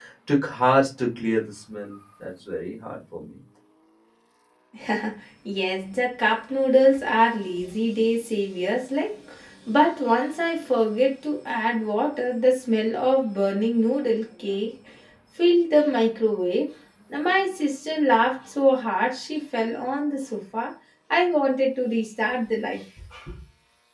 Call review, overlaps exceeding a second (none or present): none